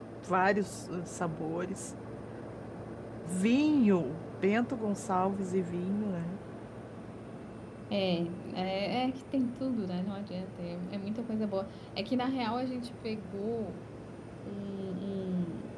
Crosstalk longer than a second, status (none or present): none